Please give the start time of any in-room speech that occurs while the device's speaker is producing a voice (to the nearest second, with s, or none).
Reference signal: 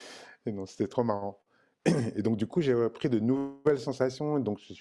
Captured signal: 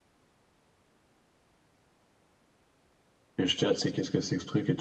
3 s